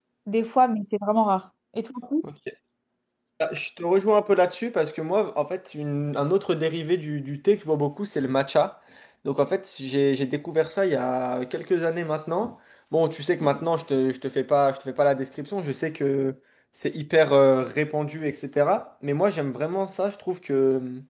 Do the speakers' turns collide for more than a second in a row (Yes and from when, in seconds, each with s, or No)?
No